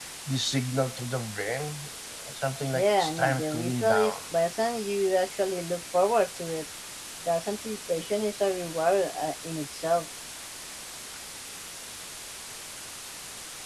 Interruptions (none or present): present